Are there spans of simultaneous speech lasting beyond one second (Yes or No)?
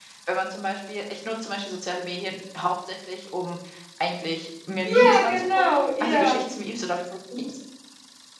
Yes